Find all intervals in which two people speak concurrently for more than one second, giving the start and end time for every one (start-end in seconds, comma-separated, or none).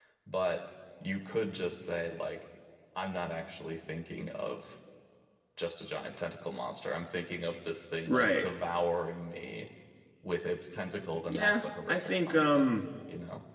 11.3-12.7